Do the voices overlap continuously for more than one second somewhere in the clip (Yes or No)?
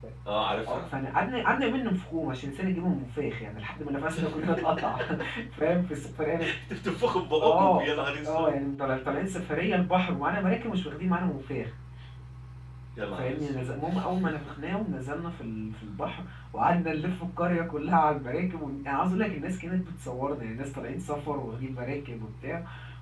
No